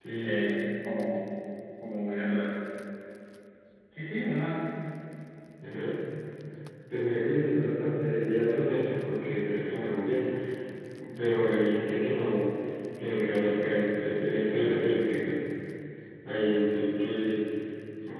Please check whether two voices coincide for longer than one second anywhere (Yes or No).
No